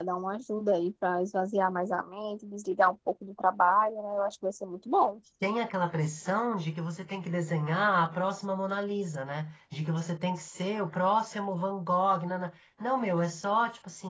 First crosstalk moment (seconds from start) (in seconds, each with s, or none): none